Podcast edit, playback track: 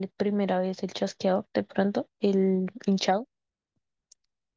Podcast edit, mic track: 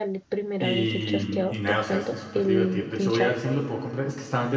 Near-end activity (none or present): present